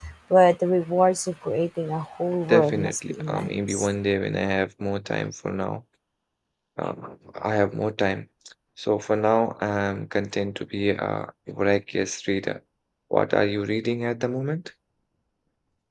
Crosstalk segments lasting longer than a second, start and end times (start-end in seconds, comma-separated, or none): 2.5-3.9